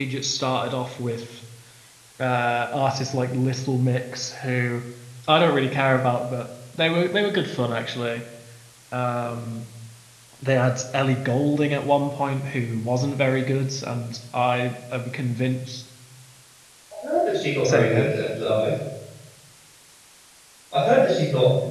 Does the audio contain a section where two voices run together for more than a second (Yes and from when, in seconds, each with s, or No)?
No